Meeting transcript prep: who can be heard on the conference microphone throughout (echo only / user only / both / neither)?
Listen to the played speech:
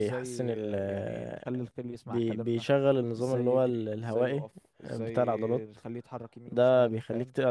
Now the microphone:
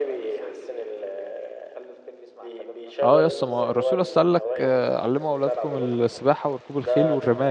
both